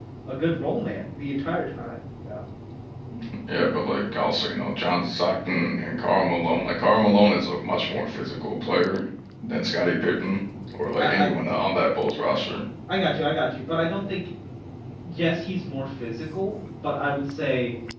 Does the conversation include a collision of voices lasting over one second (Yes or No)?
No